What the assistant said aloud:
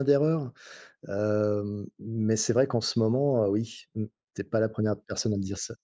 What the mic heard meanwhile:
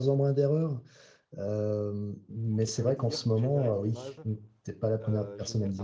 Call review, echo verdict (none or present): present